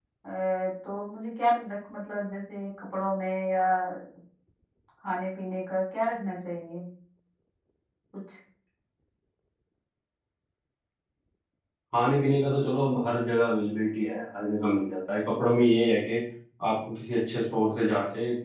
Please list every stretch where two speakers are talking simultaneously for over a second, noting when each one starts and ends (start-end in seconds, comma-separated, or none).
none